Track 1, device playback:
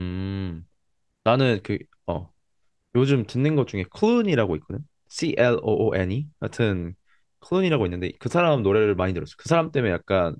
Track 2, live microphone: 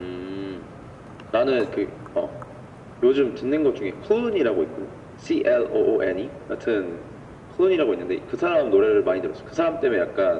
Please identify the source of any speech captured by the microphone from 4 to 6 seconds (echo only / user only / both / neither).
echo only